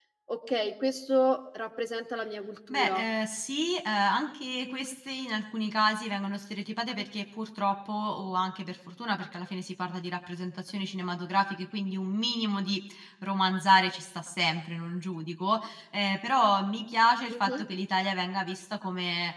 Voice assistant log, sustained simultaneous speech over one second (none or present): none